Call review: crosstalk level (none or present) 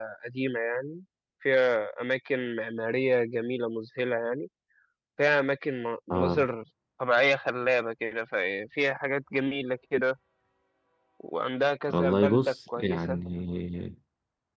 present